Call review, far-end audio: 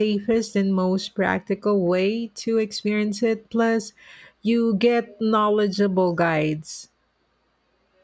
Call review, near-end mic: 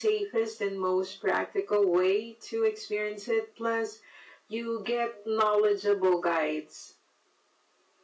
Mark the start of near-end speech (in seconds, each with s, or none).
none